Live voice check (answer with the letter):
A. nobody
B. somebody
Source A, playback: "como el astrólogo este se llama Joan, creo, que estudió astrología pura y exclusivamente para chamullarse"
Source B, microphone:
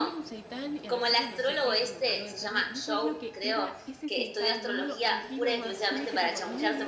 B